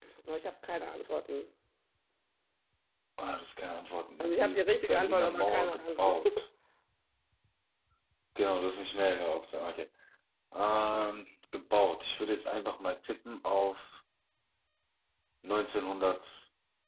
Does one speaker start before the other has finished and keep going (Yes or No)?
Yes